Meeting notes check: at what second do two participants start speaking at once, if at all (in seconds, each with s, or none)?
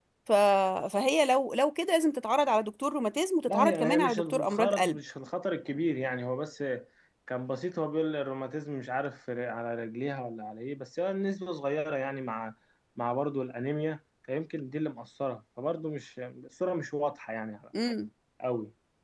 3.5 s